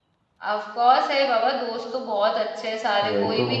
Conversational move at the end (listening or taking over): listening